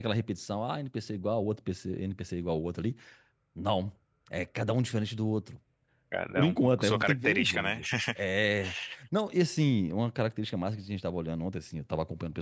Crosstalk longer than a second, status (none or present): present